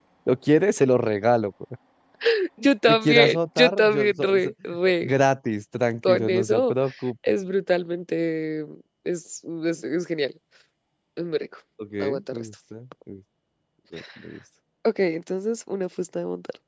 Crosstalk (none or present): present